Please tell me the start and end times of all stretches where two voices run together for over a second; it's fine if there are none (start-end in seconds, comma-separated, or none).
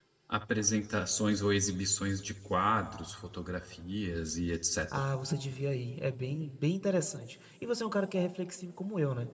none